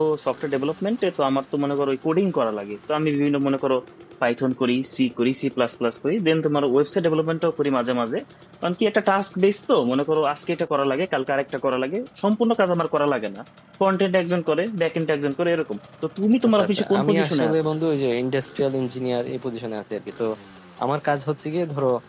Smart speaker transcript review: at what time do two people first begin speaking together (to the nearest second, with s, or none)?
16 s